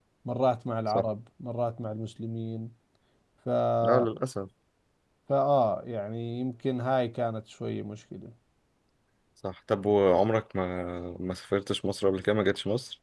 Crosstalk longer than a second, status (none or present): none